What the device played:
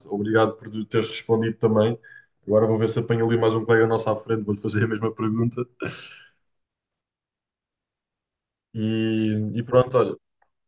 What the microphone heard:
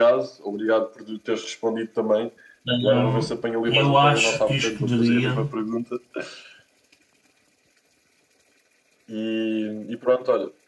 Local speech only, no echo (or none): Ahm, eu acho que escolheria.